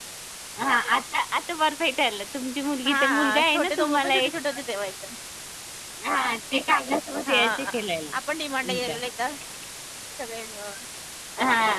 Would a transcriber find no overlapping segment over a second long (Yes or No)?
No